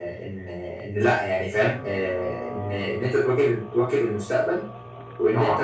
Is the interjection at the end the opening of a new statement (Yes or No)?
No